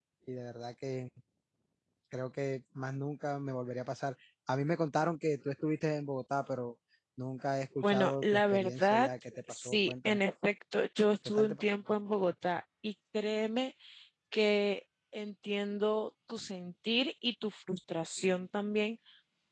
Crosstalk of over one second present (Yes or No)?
Yes